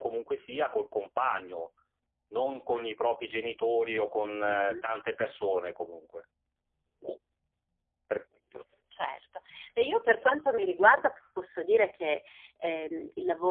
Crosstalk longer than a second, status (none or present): none